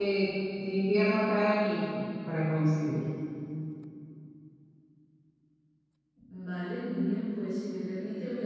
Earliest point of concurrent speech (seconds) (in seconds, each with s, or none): none